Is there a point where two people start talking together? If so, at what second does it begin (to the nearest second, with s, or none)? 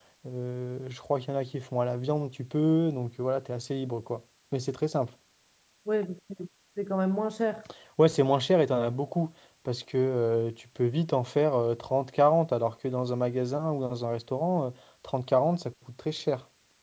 none